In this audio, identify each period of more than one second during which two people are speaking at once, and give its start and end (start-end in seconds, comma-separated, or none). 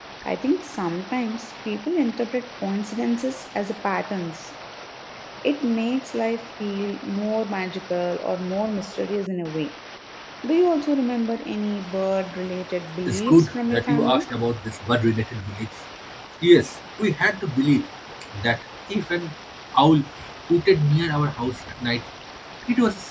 13.1-14.3